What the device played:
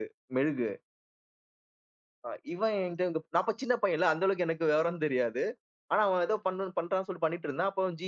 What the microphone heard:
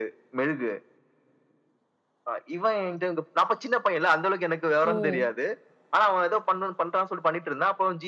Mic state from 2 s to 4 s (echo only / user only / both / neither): echo only